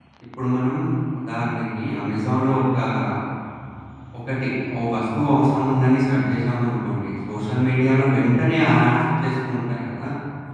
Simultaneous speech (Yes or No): No